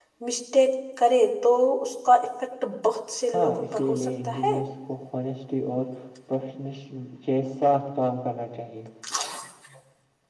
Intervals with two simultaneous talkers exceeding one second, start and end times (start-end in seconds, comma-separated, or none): 3.3-4.5